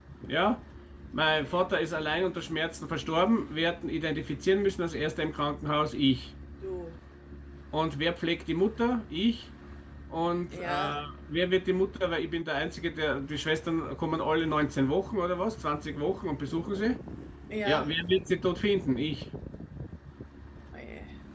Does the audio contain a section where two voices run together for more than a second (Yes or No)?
No